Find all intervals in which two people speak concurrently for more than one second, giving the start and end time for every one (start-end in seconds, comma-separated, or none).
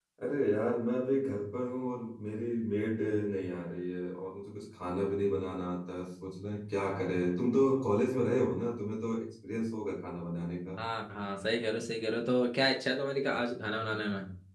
none